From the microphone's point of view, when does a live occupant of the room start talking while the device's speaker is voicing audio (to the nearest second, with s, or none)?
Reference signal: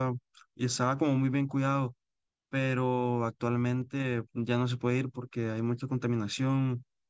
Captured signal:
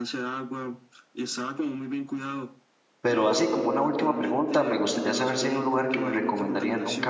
3 s